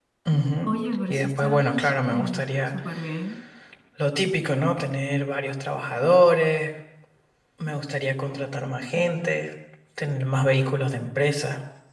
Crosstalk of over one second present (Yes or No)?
Yes